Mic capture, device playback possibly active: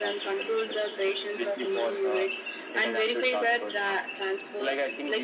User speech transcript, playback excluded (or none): none